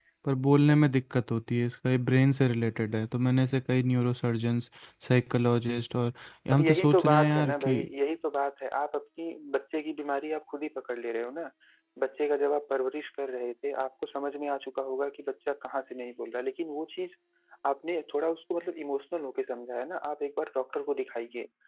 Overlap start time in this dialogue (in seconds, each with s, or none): 6.5 s